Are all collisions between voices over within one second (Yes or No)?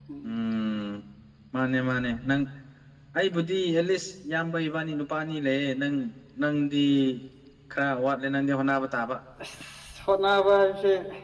Yes